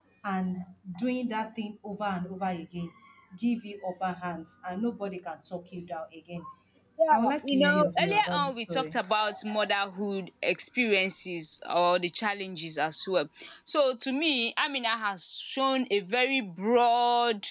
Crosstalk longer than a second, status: present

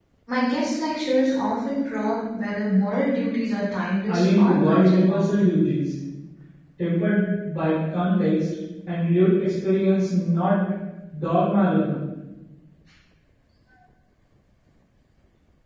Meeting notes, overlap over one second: present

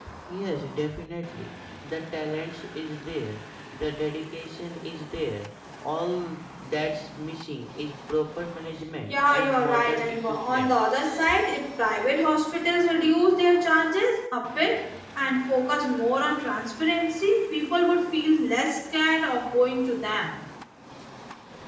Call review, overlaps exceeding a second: present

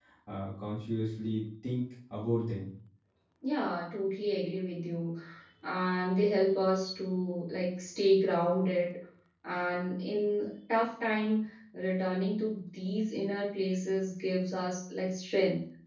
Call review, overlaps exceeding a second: none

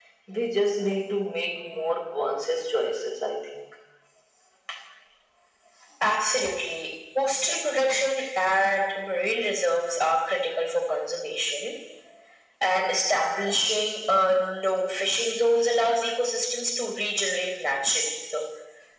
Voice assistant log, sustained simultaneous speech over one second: none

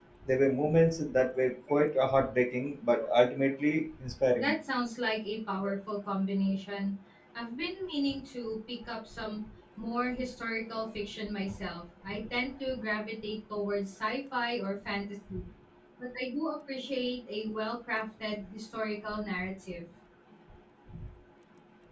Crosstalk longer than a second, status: none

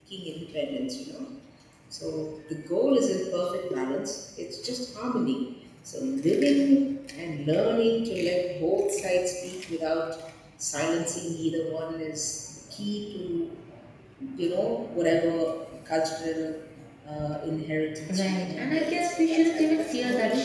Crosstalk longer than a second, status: present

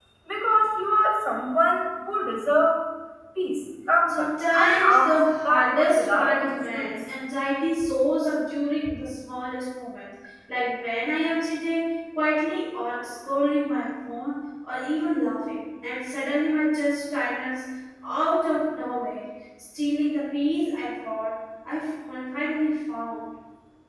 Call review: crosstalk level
present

